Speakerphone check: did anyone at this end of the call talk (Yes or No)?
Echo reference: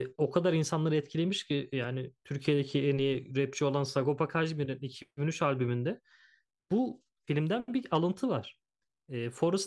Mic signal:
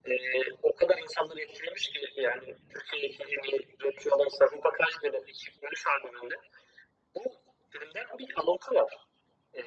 No